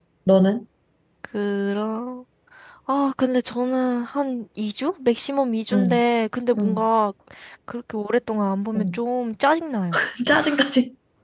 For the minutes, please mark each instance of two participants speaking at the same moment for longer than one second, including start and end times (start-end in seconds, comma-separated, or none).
none